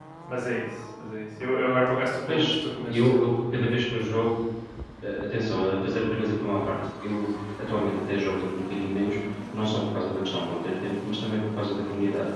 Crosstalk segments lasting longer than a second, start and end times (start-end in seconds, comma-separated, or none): 2.3-4.1